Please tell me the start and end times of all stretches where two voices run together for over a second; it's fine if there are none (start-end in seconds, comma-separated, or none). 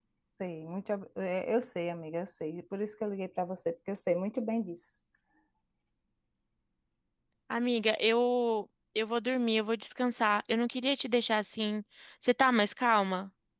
none